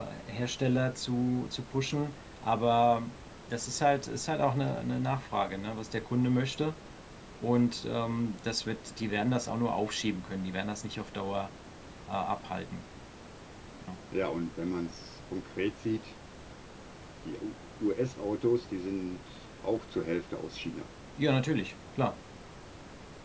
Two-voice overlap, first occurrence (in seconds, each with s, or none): none